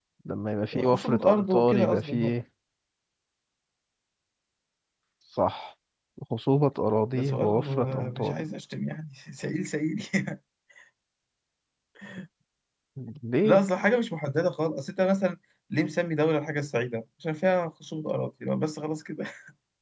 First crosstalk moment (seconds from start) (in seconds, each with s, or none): 0.8 s